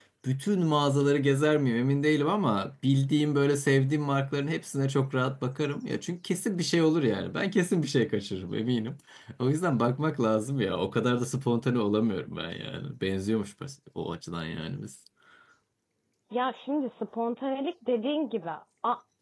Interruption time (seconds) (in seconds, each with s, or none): none